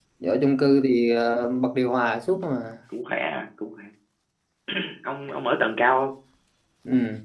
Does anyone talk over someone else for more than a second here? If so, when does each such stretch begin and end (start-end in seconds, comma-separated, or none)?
none